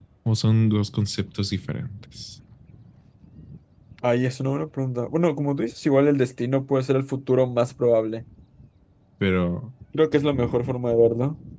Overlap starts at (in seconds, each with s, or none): none